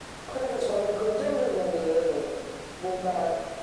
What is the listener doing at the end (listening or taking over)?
listening